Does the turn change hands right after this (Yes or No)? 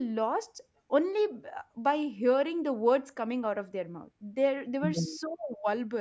No